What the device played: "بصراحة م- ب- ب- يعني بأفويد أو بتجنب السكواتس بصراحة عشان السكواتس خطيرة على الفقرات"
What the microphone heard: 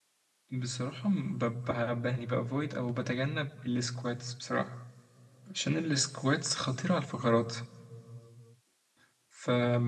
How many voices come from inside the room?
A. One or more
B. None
B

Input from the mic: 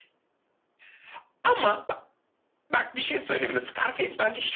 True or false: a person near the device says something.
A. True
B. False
B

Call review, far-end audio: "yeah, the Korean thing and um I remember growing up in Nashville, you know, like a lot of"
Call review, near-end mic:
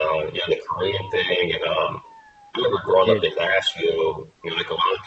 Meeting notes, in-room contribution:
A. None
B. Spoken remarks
B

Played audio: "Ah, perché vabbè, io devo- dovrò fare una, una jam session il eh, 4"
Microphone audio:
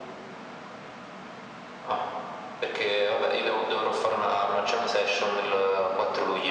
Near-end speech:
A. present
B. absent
B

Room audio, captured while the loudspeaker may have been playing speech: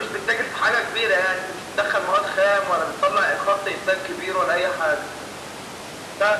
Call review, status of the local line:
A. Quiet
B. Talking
A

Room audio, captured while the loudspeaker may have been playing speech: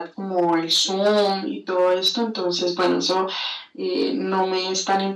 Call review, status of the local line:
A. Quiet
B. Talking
A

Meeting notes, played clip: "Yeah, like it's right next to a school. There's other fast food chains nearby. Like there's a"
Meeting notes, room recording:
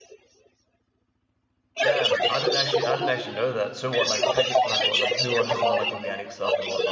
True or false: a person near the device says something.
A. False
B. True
B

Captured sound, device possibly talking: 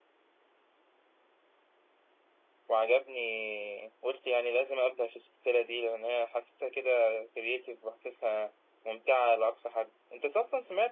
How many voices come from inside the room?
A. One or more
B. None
A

